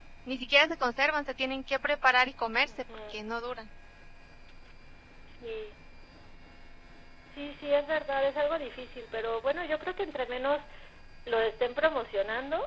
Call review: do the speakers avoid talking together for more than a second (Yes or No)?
Yes